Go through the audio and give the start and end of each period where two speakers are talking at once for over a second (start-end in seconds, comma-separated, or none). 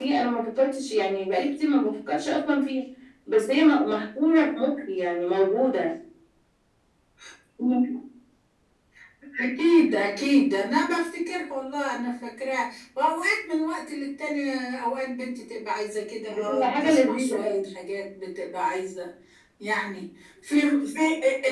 16.3-17.7